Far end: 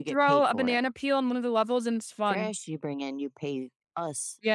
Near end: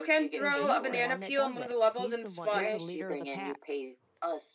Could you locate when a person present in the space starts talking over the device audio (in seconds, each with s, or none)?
0.4 s